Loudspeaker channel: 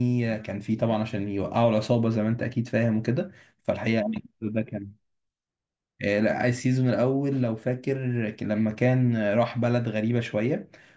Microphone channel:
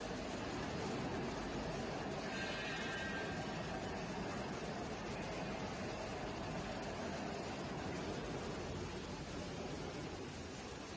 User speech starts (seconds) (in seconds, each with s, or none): none